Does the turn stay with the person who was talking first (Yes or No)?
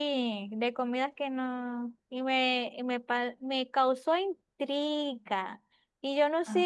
Yes